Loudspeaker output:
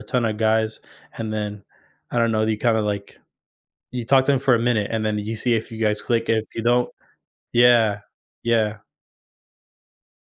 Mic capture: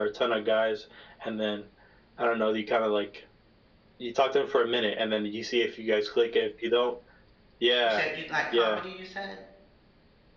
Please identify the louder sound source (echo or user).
echo